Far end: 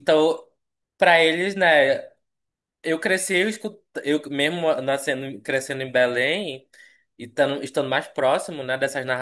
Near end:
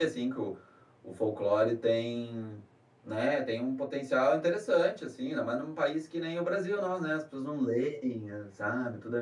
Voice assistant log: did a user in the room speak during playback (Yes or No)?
Yes